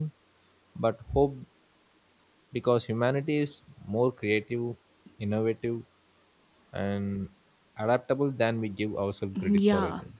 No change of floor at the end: No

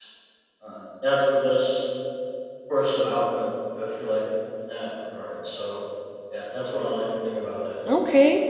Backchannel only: No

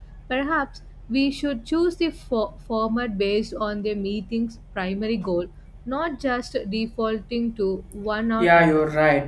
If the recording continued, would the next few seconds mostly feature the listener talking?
Yes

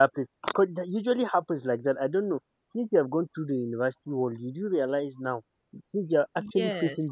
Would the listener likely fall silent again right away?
Yes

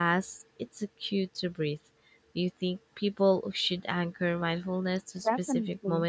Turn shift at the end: Yes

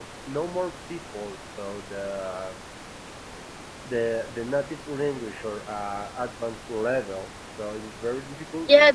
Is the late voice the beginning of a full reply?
Yes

